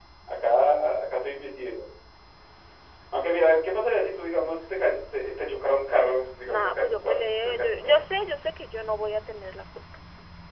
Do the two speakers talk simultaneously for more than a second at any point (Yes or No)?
Yes